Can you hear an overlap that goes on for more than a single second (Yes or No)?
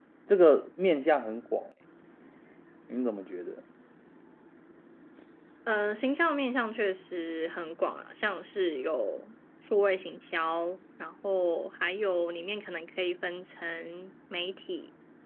No